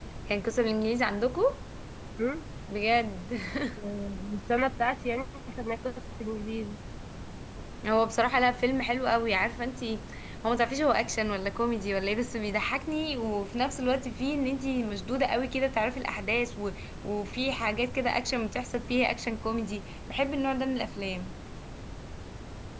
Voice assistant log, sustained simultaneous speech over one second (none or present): none